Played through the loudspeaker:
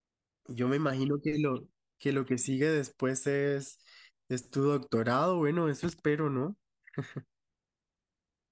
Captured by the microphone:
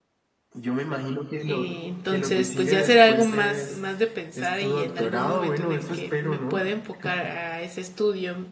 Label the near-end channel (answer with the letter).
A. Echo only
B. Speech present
B